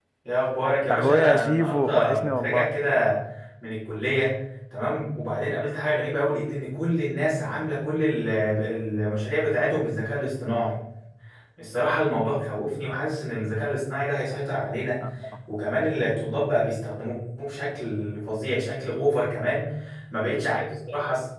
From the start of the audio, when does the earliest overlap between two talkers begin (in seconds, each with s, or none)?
0.9 s